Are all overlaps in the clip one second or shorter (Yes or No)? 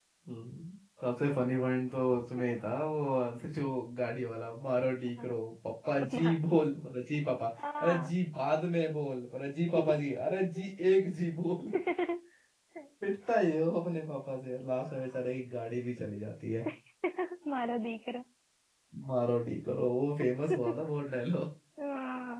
Yes